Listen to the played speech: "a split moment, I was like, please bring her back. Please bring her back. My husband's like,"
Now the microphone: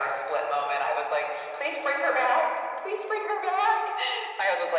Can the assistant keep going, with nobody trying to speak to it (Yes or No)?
Yes